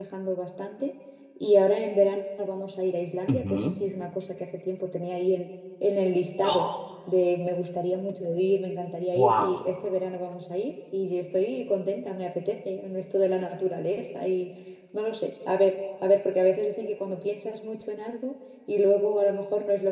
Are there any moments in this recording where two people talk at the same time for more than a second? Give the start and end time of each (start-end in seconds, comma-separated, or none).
none